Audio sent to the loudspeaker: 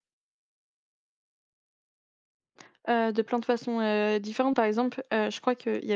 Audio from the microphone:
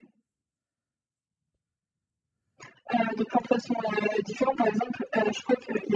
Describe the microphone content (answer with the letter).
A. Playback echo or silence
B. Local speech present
A